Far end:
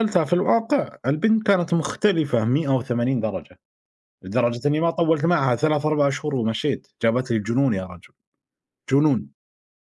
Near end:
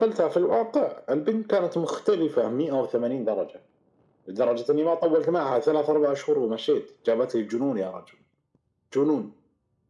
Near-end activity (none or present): none